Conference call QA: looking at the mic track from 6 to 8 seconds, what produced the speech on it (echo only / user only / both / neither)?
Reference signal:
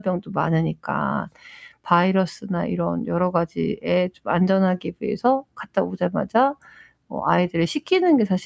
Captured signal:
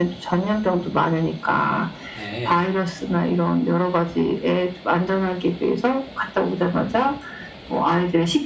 echo only